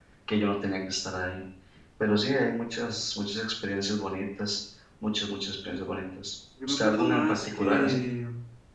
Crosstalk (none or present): present